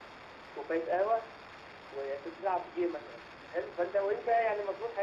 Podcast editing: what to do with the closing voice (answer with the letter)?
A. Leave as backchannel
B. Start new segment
A